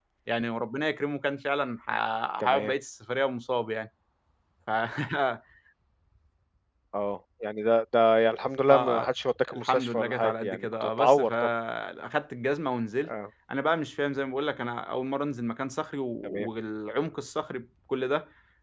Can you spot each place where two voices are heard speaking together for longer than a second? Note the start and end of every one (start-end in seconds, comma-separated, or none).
9.5-11.3